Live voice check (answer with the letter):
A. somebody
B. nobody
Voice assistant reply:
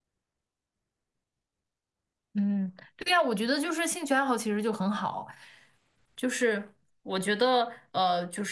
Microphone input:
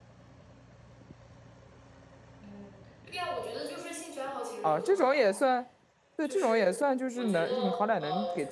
A